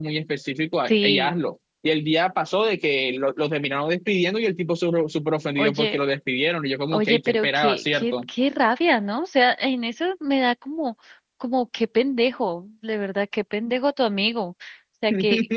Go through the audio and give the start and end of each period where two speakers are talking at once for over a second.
6.9-8.1

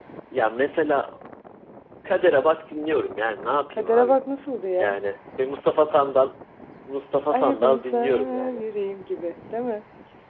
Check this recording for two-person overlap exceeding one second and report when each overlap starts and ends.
7.3-8.6

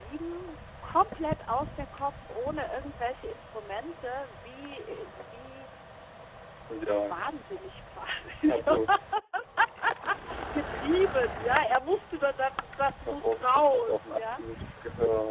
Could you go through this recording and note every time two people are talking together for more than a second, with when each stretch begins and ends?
13.1-14.4

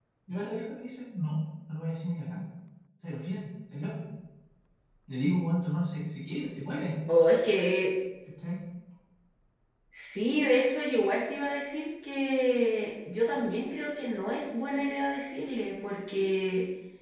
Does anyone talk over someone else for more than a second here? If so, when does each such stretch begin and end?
none

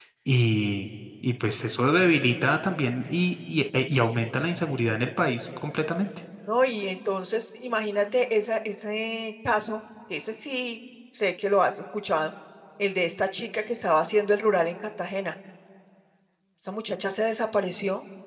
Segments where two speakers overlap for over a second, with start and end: none

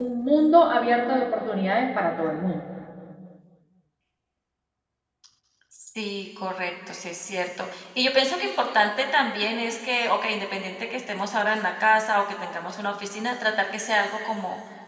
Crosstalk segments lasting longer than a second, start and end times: none

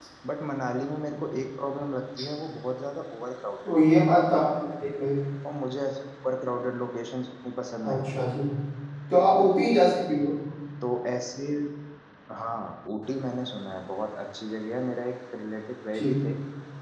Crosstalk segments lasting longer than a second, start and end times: none

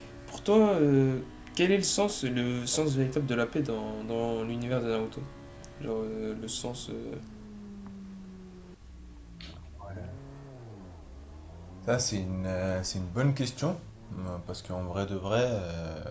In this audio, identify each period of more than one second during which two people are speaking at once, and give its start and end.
none

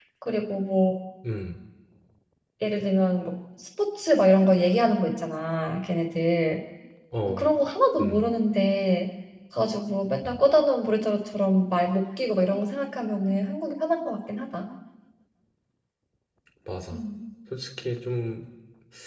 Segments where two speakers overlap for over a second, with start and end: none

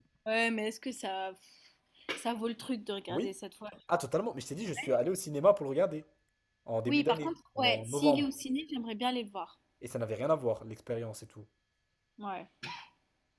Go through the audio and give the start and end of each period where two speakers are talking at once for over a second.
6.9-8.2

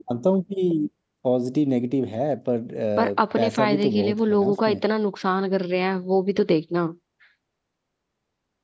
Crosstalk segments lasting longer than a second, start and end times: 3.0-4.8

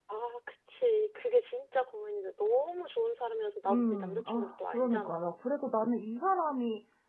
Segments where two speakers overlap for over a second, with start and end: 3.7-5.4

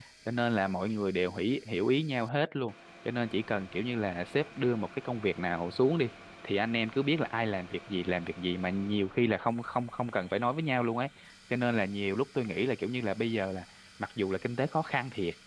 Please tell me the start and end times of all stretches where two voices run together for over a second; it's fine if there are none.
none

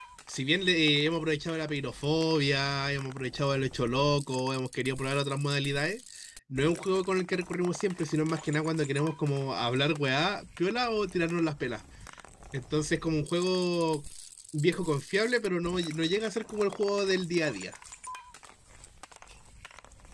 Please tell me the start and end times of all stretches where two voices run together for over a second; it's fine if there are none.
none

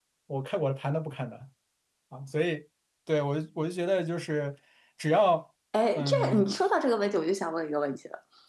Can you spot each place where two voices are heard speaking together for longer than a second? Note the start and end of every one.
none

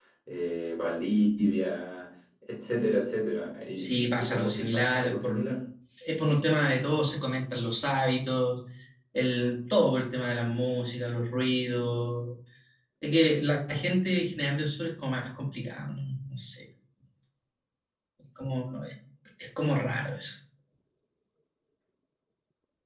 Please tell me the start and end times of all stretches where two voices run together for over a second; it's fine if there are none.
3.8-5.4

